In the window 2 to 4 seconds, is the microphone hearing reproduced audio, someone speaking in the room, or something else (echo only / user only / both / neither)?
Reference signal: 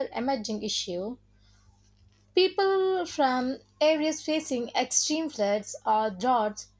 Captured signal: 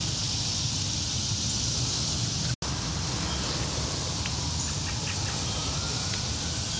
neither